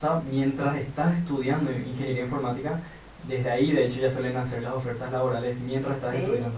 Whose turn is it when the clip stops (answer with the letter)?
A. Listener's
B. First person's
A